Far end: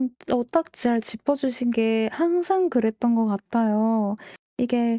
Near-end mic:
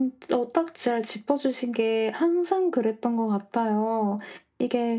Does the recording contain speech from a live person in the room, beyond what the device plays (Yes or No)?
No